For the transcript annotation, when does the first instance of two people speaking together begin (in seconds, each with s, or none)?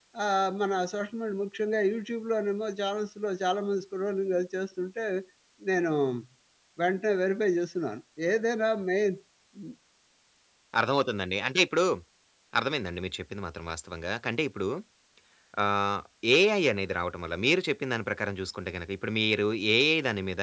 none